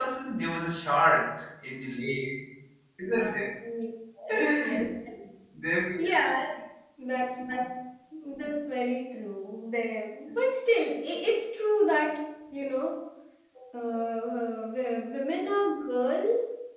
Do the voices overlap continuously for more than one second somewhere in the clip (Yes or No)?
No